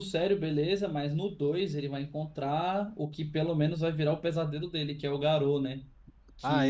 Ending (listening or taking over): taking over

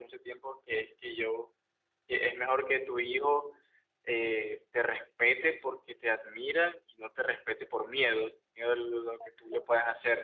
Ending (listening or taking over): listening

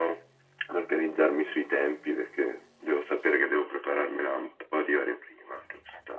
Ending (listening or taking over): taking over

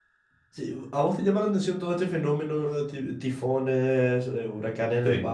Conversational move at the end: listening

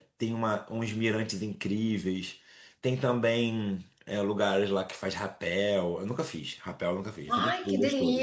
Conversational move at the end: taking over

